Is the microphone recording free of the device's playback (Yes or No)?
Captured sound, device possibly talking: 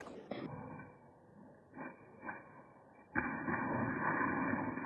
Yes